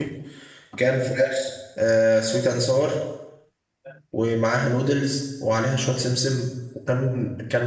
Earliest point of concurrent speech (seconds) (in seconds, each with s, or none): none